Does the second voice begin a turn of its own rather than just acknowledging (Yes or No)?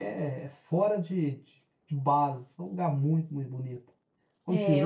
Yes